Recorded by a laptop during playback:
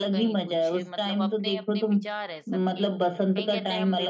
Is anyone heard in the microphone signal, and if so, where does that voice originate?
both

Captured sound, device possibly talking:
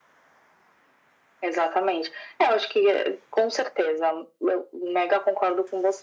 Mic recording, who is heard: echo only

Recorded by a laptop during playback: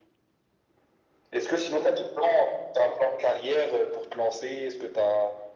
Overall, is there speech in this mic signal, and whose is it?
echo only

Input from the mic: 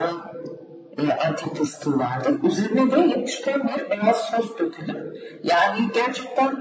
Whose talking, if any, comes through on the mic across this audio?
echo only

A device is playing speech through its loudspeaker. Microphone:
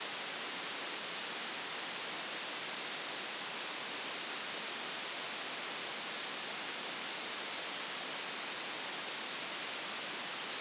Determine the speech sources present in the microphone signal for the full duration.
neither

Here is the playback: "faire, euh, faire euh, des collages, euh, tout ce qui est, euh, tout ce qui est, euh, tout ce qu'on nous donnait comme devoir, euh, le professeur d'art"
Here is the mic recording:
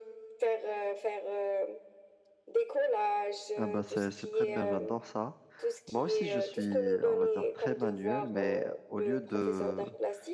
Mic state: both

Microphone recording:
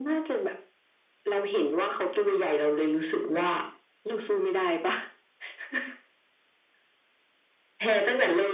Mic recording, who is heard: echo only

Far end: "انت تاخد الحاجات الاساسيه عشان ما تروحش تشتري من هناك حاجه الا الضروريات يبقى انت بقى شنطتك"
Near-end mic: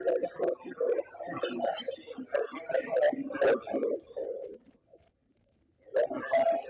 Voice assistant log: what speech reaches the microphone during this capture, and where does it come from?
echo only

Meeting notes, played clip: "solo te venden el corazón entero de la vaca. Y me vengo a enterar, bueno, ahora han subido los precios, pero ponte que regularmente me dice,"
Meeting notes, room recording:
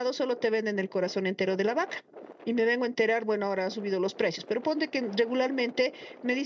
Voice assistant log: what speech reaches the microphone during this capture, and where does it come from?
echo only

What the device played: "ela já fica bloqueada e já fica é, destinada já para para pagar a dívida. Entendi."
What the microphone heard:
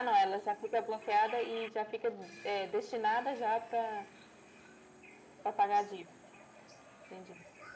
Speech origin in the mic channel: echo only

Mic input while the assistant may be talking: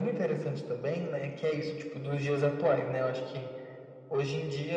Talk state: echo only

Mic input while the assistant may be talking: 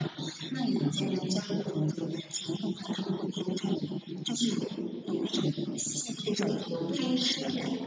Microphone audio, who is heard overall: both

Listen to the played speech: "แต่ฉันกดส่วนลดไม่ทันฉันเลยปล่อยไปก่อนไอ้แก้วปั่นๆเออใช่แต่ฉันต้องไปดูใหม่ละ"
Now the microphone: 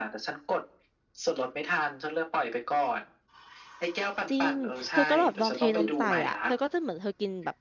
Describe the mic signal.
both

